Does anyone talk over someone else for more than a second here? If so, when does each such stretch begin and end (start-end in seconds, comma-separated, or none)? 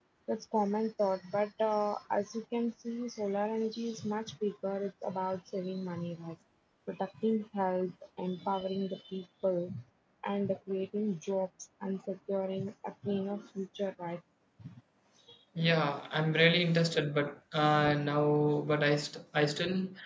none